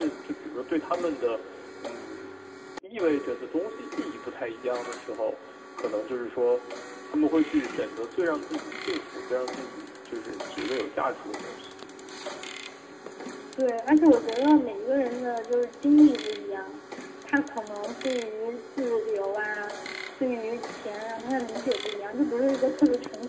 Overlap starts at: none

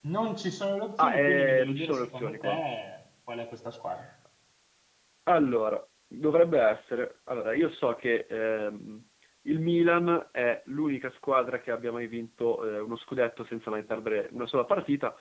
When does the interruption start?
1.0 s

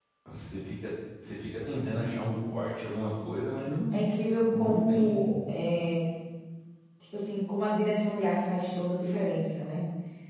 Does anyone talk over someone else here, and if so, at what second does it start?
3.9 s

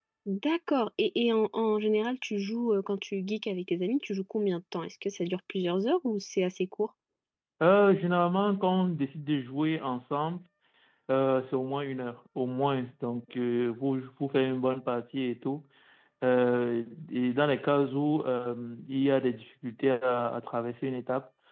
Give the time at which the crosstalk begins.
none

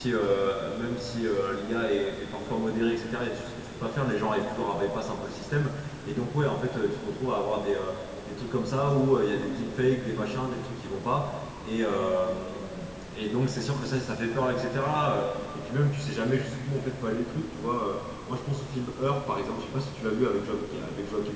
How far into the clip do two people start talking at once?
none

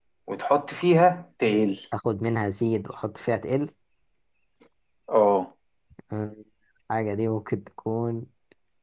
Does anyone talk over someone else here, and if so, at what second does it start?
none

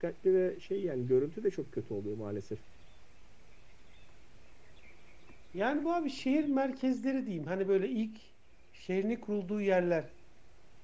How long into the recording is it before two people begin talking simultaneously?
none

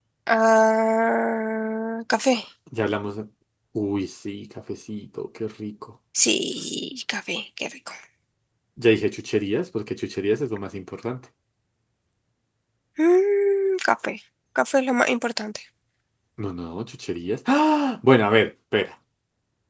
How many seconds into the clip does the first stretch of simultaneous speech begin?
none

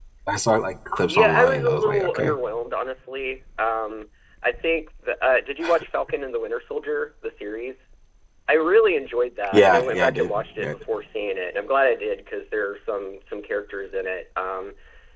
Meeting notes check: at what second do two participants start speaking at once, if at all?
1.1 s

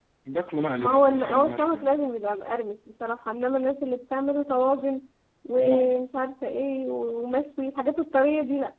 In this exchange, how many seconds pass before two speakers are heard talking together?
0.8 s

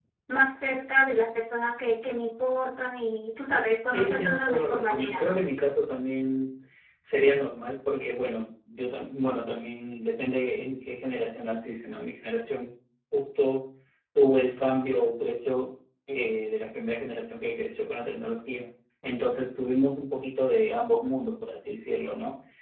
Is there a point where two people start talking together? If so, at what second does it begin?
3.9 s

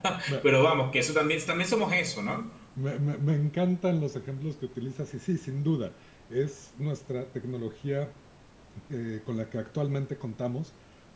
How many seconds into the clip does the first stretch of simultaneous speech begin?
none

